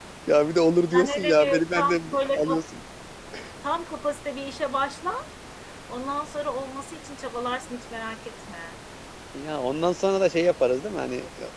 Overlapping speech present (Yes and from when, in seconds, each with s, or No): Yes, from 0.9 s